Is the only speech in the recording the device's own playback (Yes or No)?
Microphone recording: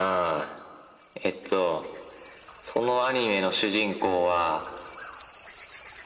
Yes